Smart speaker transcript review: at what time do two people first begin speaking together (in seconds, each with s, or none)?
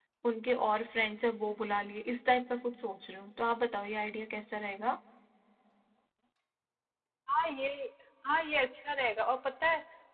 none